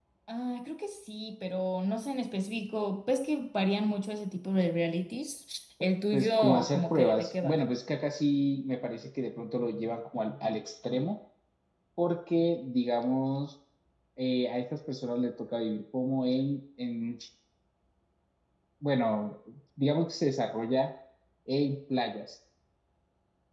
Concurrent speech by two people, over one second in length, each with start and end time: 6.1-7.6

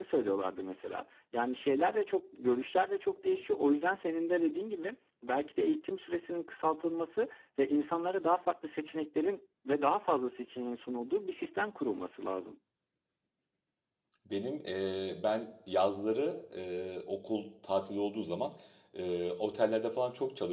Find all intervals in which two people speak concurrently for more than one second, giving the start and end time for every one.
none

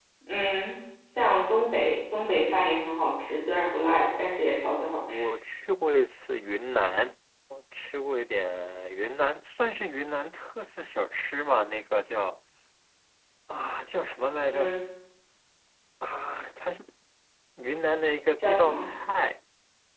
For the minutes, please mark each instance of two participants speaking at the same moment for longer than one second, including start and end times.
none

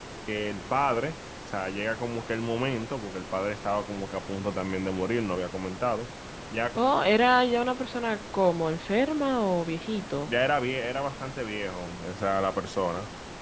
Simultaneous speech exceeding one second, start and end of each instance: none

